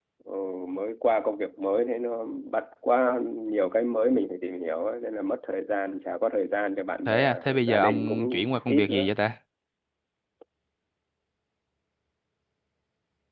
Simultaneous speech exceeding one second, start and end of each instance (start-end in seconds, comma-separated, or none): 7.1-9.1